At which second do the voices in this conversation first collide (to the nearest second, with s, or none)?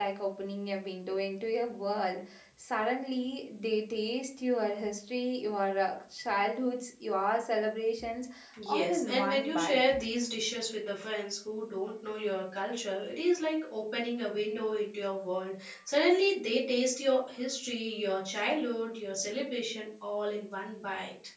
9 s